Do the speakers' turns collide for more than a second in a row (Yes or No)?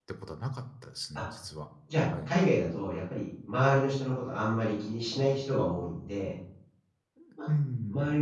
No